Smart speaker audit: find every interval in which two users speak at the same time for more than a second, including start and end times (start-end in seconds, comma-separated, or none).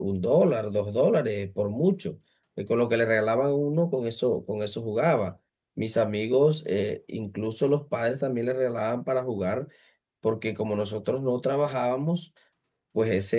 none